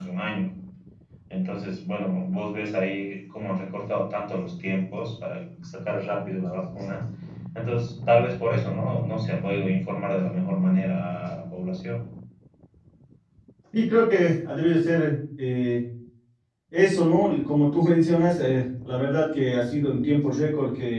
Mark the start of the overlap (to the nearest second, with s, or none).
none